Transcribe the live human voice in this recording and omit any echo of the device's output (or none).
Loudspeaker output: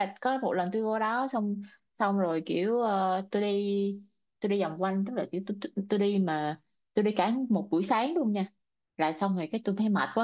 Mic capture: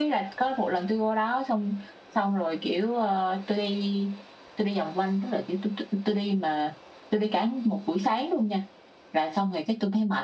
none